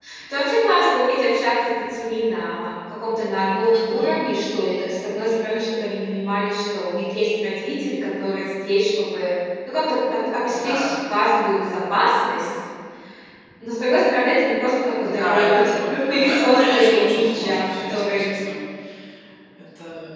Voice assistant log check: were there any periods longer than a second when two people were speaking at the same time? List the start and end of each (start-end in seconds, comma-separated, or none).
15.0-18.3